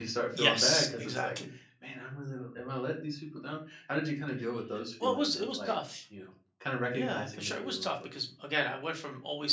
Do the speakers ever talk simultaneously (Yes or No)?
Yes